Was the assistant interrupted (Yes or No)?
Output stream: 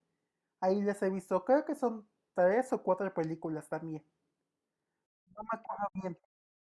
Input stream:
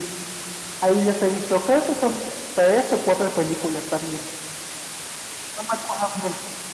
No